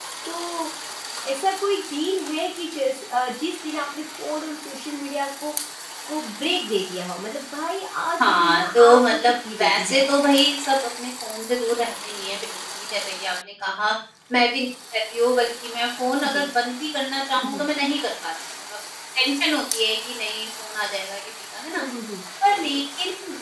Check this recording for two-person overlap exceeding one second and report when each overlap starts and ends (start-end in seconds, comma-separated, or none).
8.2-10.0